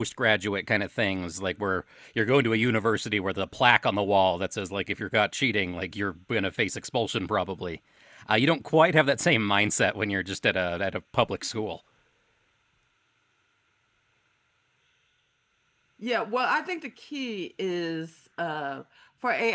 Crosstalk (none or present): none